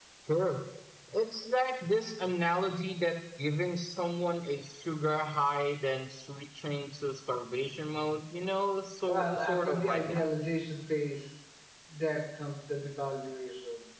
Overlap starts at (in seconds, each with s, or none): 9.1 s